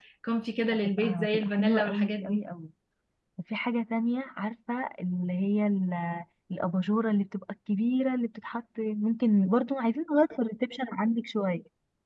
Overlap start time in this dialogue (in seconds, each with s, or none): 1.0 s